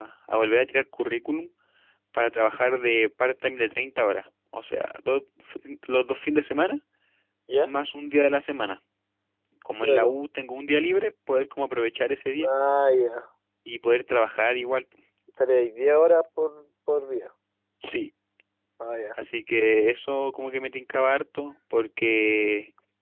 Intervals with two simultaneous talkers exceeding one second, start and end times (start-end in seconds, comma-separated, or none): none